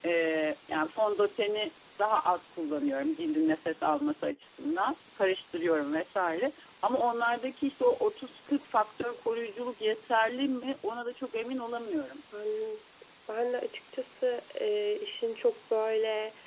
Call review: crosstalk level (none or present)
none